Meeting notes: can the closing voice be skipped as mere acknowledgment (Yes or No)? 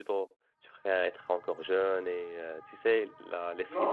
No